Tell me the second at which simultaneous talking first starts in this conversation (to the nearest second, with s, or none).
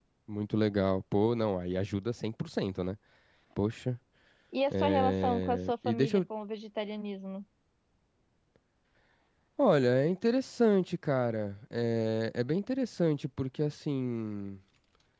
5 s